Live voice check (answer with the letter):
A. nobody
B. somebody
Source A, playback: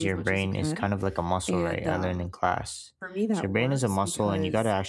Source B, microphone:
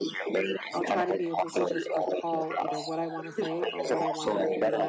B